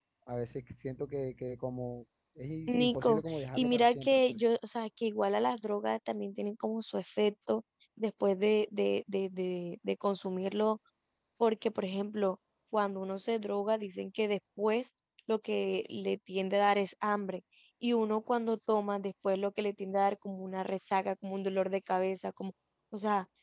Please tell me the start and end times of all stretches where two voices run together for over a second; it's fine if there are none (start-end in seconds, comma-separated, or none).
2.7-4.2